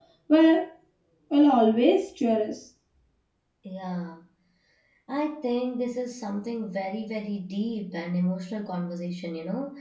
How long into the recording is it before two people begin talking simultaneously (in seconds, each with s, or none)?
none